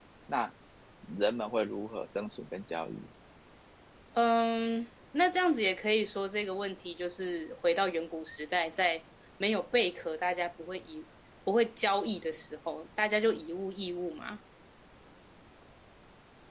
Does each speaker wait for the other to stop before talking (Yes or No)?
Yes